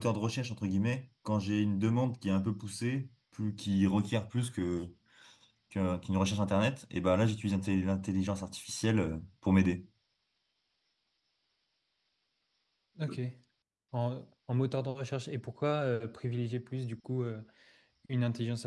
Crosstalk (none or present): none